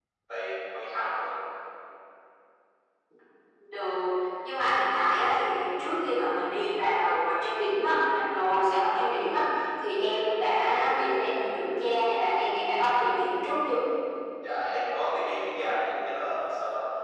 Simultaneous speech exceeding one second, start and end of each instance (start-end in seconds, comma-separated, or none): none